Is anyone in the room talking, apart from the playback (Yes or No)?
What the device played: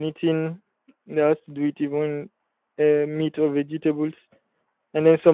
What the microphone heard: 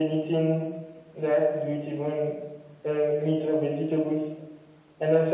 No